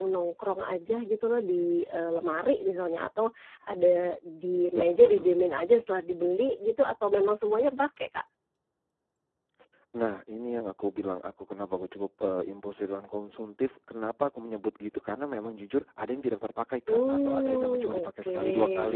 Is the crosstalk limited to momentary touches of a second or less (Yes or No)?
No